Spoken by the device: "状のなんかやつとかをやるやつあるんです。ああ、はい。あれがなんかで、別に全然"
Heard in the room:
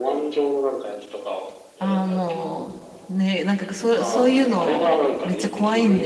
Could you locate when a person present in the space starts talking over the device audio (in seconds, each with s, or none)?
1.8 s